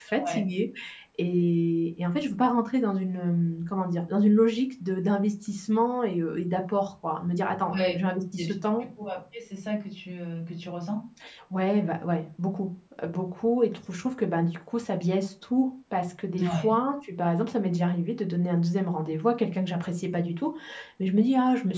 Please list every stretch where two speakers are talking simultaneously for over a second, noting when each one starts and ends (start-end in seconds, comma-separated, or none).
none